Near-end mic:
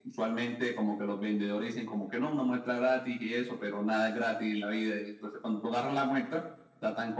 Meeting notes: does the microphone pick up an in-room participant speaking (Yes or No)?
No